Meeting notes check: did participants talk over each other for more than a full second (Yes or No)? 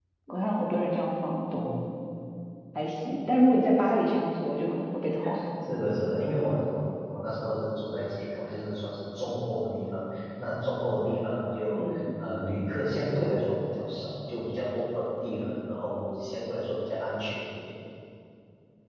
No